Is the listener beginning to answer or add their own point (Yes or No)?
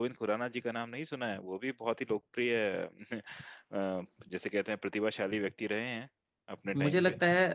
Yes